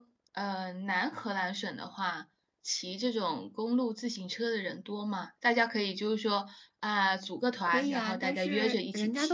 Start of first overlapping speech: 8 s

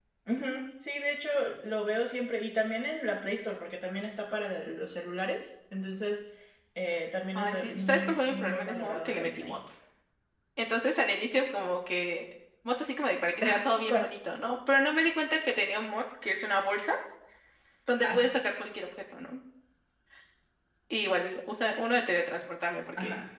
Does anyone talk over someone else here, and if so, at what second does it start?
7 s

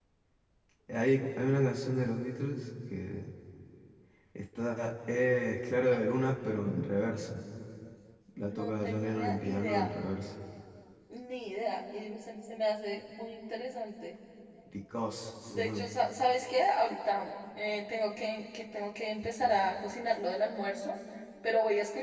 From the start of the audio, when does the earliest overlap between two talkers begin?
8 s

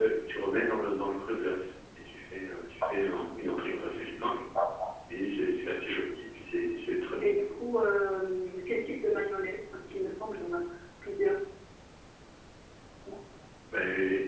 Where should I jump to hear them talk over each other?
none

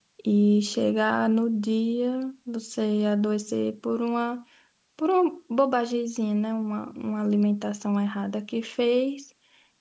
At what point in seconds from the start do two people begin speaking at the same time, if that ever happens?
none

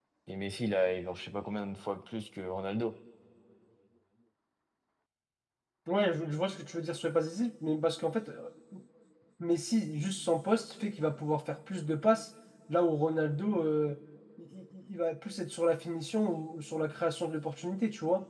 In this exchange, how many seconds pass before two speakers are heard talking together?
none

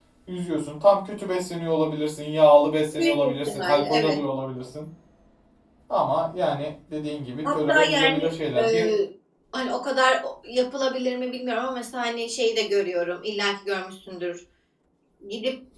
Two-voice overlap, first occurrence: 3 s

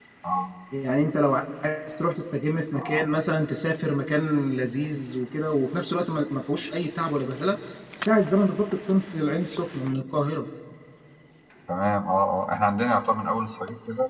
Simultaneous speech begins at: none

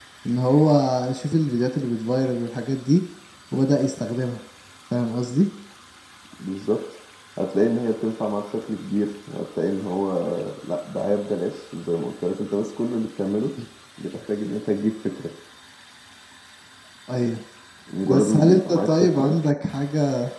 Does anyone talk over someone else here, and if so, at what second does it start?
18 s

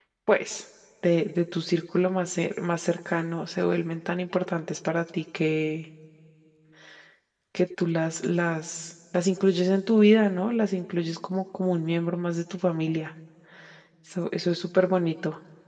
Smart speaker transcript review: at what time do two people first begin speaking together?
none

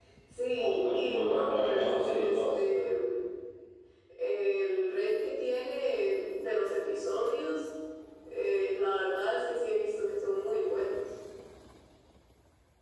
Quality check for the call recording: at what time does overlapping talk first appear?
1 s

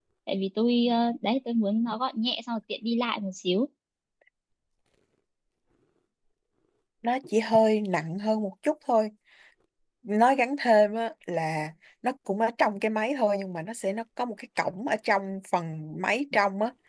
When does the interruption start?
none

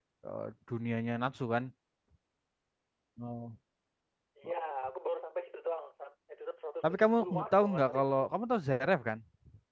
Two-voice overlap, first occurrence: 7 s

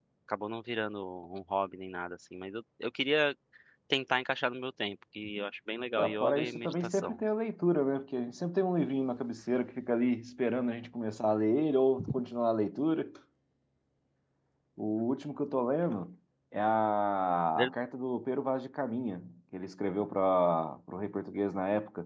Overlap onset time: 6 s

